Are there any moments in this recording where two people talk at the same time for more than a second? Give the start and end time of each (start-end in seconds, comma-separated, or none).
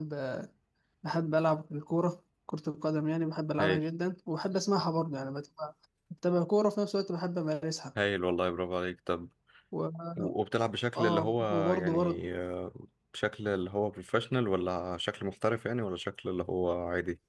10.9-12.2